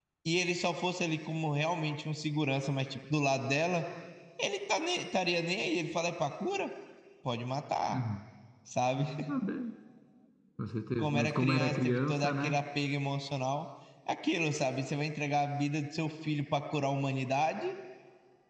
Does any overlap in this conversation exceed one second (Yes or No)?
Yes